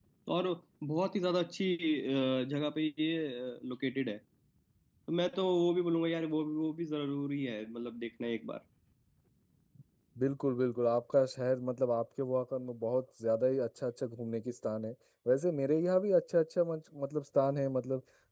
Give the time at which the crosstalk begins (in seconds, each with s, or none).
none